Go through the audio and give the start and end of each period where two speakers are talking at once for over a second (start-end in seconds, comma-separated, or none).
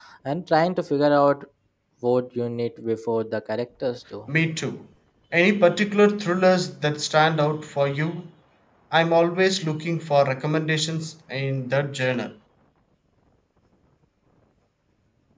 none